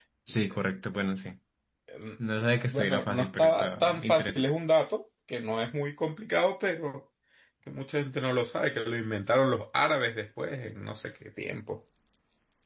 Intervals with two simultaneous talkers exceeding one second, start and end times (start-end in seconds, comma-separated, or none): 2.7-4.4